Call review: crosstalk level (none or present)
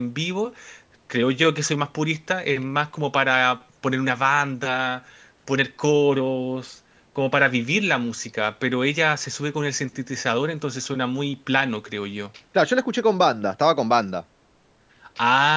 none